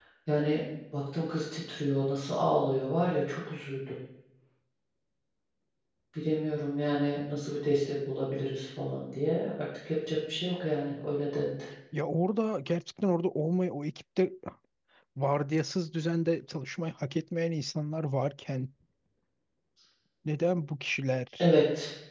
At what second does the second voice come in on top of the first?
none

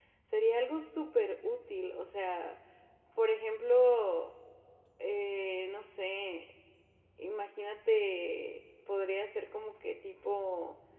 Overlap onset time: none

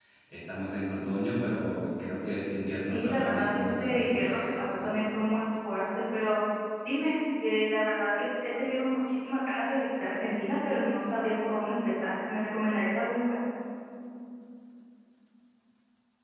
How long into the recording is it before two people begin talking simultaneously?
2.9 s

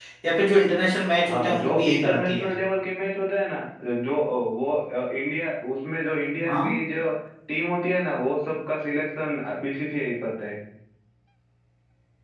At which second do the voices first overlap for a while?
1.3 s

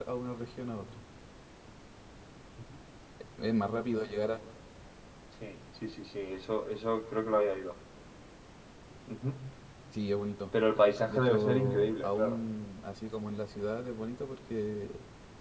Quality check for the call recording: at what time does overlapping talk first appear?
11.1 s

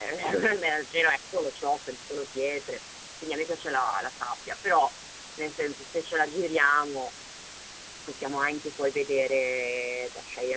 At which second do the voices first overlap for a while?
none

